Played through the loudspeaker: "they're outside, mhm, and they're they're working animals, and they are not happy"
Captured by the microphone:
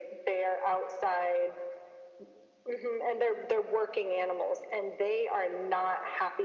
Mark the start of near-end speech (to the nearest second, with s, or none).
none